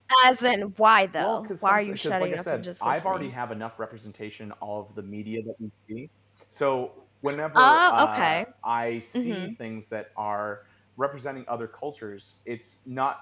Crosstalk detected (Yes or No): Yes